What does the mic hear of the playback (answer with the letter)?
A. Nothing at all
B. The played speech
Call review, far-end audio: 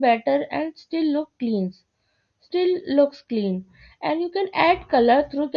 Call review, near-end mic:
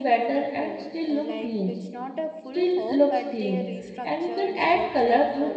B